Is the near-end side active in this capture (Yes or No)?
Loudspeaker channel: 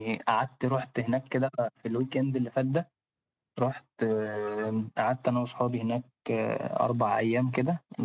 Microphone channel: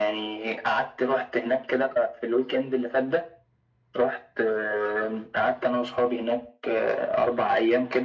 No